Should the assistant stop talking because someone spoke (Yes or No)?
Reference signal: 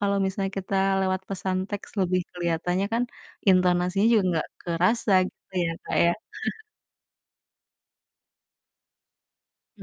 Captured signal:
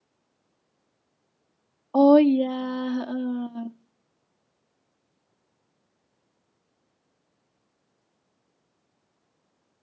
Yes